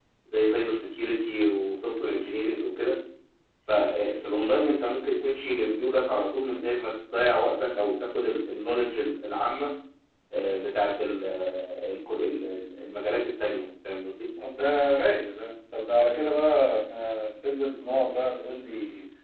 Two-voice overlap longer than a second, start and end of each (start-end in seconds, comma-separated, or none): none